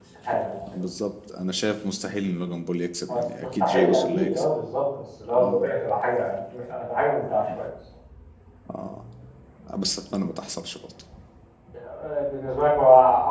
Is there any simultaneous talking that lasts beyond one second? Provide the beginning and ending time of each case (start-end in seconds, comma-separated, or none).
3.1-4.4